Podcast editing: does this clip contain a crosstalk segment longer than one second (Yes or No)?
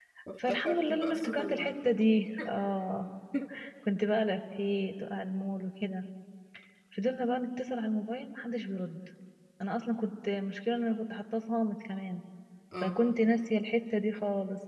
Yes